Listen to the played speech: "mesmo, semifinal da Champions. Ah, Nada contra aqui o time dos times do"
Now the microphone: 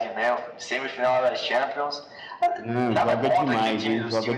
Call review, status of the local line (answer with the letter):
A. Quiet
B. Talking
B